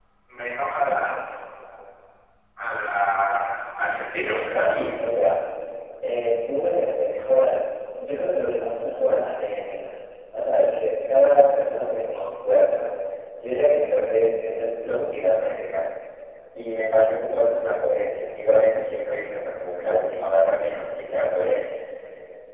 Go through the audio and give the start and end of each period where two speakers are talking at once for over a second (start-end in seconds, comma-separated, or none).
none